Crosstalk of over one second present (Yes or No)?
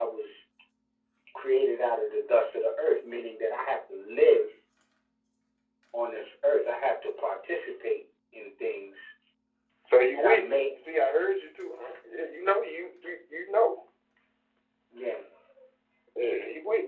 No